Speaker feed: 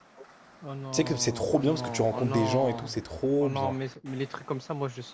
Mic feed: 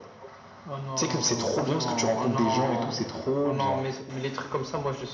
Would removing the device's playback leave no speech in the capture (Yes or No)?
Yes